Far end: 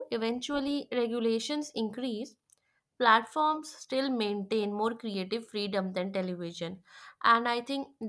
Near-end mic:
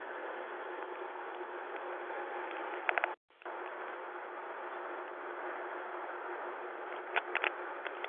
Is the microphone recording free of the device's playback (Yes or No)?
Yes